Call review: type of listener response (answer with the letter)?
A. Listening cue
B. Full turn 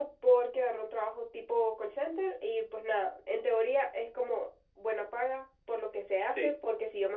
A